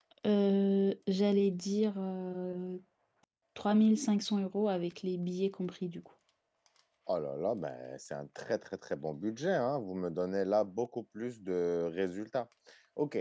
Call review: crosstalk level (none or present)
none